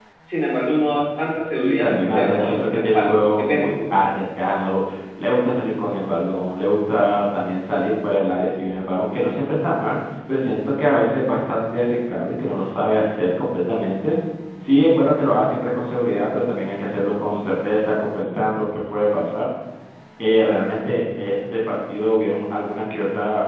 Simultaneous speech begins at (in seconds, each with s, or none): 1.5 s